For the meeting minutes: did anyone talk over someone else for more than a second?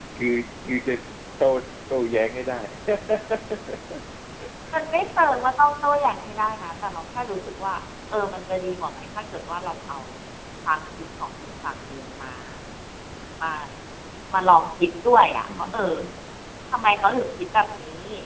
No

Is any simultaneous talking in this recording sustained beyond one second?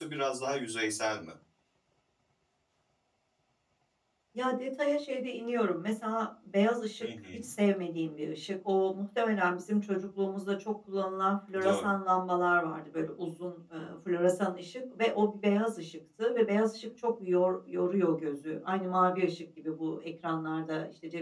No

